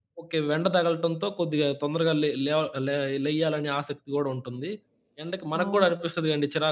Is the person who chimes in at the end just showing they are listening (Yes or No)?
Yes